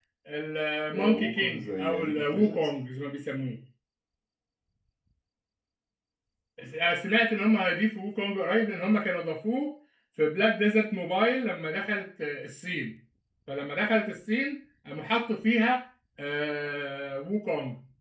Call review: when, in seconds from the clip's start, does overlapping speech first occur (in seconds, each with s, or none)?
1.1 s